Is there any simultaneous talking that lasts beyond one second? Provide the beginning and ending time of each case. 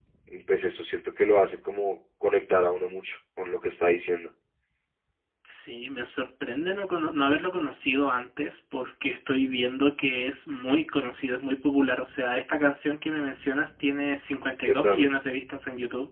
none

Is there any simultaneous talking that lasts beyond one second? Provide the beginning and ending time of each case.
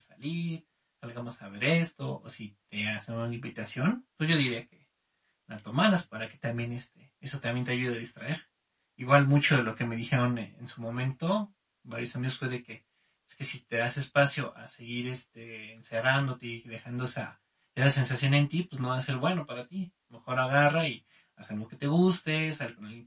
none

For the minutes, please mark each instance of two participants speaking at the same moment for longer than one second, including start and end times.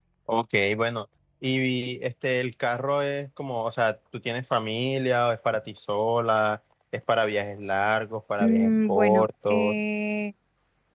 8.4-9.8

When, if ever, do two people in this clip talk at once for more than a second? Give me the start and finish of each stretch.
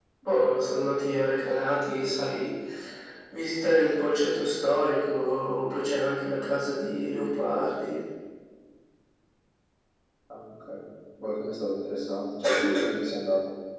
none

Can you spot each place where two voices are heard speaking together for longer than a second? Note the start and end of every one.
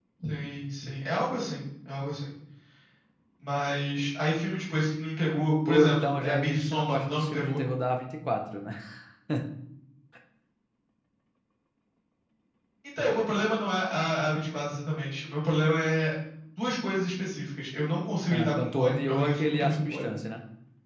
5.7-7.6, 18.3-20.1

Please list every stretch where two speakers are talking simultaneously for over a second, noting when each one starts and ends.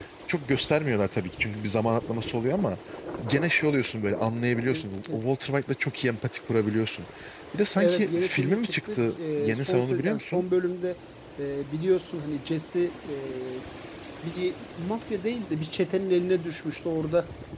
7.8-10.4

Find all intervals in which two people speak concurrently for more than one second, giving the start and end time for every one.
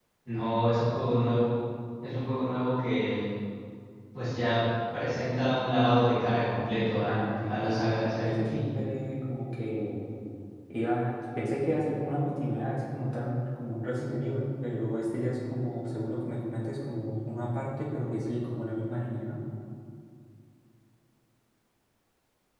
7.1-8.6

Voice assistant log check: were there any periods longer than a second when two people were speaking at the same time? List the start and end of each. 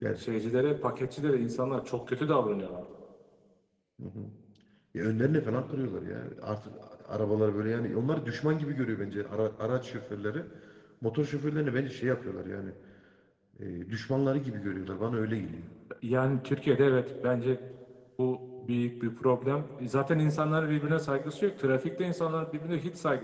none

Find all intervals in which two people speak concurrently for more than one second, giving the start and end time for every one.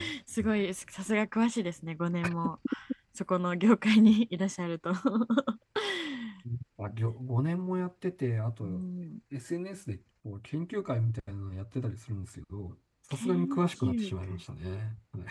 13.1-14.4

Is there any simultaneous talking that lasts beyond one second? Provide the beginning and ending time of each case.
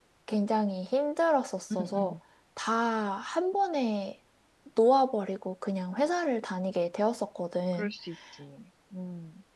none

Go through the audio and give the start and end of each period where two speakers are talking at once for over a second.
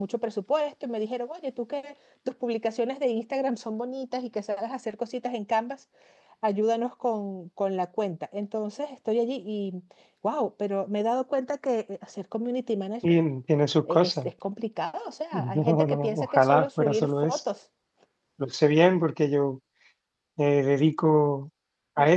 15.3-17.4

